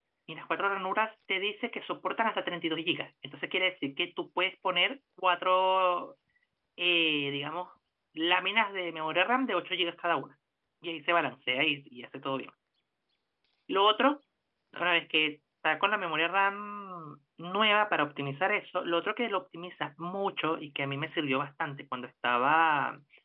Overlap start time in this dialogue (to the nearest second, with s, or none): none